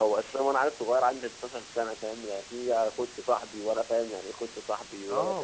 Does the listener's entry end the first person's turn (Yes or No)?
Yes